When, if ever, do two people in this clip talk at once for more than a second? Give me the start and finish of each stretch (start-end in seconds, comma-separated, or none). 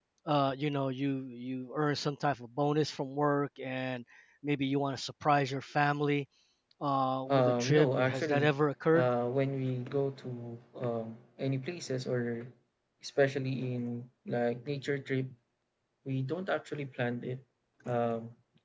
7.3-8.5